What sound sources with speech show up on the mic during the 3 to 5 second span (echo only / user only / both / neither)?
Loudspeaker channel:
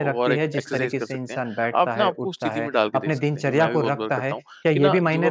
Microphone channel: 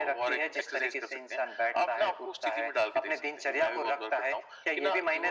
echo only